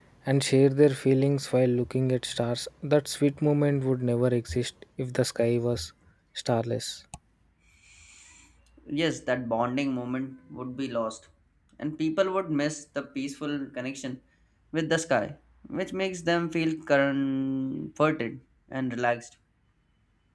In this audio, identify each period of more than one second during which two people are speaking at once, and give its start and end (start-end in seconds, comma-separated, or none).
none